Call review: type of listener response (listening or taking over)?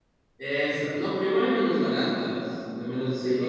taking over